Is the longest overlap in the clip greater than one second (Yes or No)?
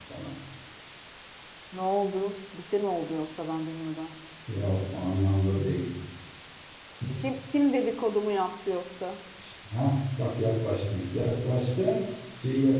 No